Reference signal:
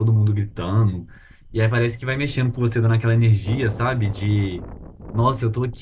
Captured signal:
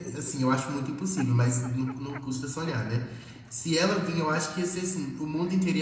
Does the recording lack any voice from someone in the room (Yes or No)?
No